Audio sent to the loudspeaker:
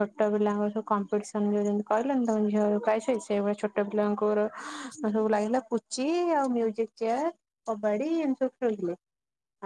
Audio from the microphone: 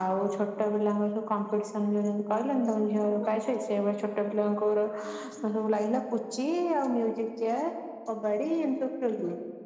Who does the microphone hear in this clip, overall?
echo only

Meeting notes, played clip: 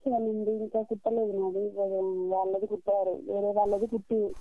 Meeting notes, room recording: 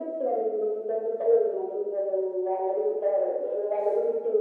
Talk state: echo only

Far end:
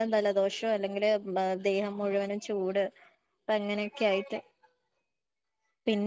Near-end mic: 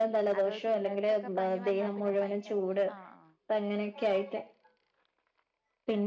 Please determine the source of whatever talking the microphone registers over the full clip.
both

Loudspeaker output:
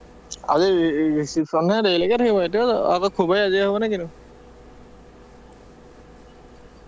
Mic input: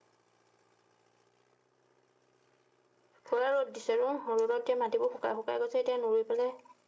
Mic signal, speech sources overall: user only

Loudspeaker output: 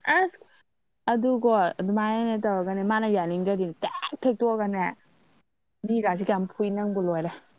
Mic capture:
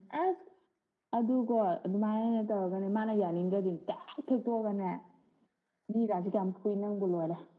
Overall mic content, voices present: echo only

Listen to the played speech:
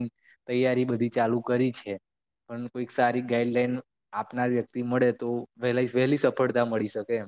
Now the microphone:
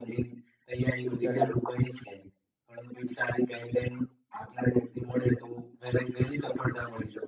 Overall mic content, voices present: both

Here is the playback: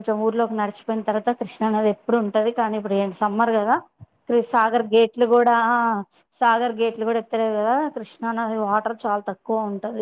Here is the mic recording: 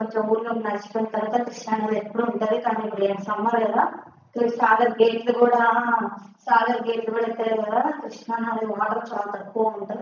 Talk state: echo only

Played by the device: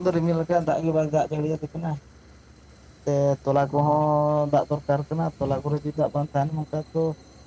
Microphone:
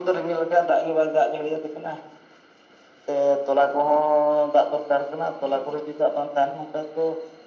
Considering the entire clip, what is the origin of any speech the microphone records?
echo only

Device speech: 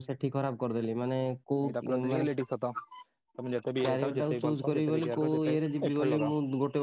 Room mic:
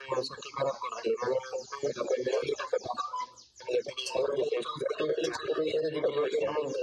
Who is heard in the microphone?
echo only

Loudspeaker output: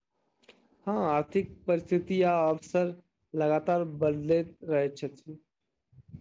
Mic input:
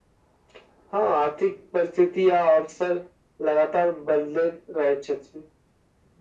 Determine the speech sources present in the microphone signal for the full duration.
echo only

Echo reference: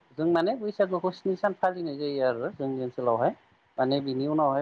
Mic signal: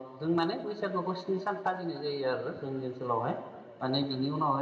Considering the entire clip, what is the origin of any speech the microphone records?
echo only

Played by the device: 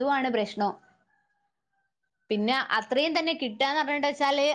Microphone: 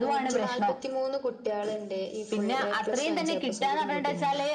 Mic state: both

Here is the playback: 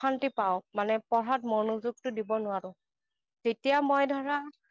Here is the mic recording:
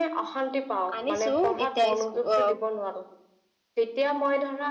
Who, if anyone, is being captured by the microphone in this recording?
both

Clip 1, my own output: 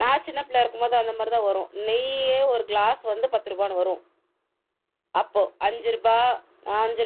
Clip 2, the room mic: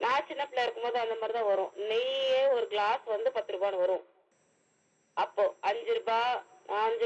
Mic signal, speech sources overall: echo only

